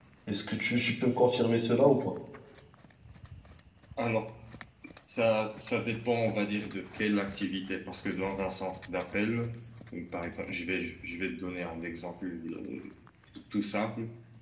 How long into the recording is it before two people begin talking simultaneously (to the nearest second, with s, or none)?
none